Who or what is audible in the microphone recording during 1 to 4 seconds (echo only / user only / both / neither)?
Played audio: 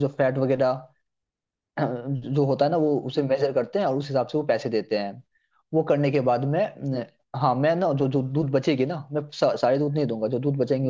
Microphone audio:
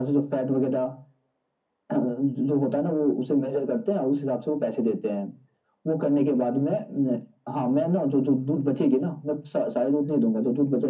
echo only